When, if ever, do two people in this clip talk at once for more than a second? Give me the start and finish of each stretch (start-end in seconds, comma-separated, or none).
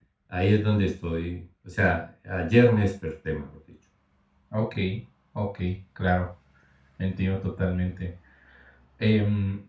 none